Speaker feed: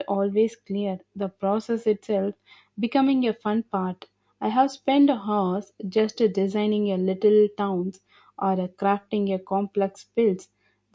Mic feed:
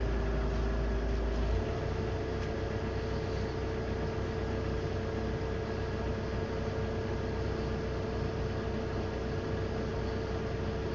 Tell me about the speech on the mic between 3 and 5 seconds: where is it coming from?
neither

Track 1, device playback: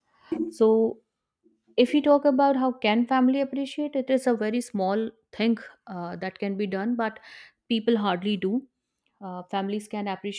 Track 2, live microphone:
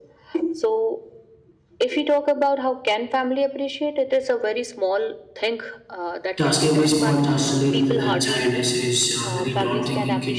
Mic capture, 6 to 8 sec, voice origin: both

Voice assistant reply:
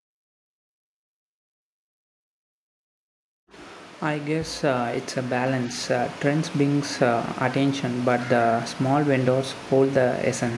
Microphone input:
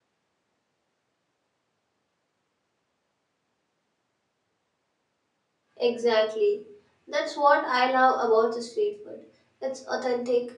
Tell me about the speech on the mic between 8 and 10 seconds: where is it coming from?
user only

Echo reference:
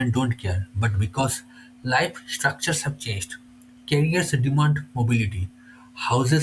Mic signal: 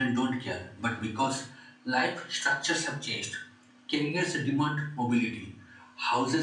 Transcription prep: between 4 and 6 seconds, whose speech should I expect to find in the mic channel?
echo only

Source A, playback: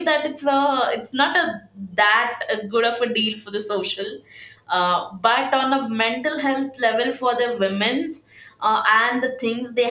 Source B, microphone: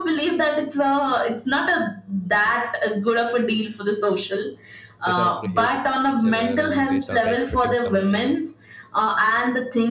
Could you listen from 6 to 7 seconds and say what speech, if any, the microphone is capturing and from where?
both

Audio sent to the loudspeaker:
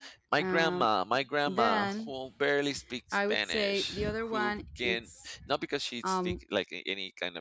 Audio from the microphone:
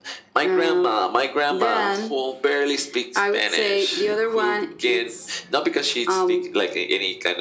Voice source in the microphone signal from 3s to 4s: echo only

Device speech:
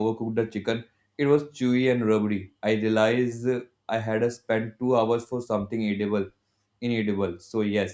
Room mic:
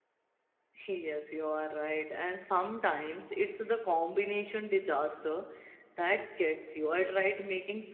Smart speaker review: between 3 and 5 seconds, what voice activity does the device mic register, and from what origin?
user only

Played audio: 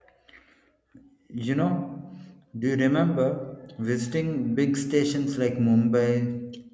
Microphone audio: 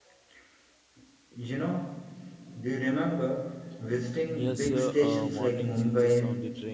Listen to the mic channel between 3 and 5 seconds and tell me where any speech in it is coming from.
both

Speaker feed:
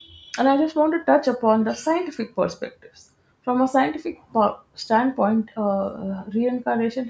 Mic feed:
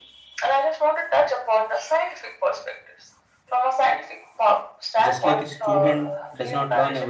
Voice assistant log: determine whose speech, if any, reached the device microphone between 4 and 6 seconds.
both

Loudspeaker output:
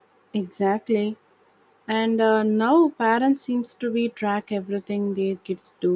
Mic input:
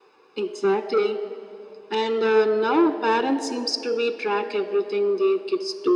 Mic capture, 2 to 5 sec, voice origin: echo only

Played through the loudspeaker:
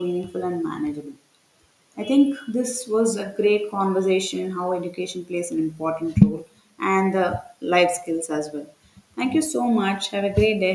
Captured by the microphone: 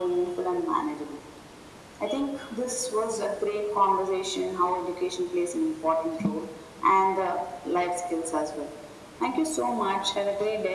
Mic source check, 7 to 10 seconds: echo only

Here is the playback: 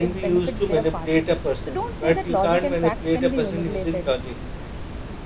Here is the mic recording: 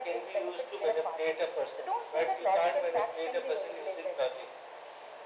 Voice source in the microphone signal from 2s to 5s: echo only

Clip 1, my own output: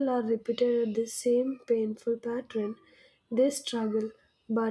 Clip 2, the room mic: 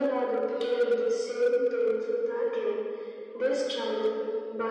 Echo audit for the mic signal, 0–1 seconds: echo only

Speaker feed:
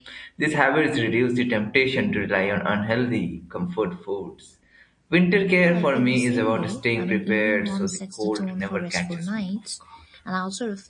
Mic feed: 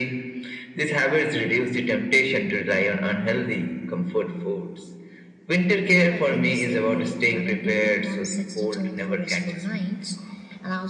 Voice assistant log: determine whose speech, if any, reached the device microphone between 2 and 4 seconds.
echo only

